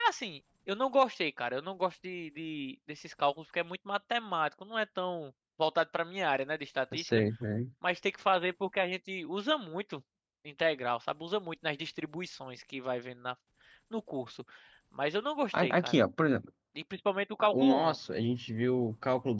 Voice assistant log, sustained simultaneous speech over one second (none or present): none